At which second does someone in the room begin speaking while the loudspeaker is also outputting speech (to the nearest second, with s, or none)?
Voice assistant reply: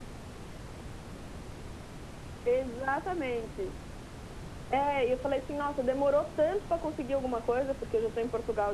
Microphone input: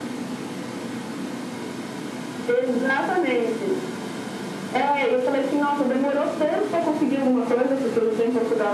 none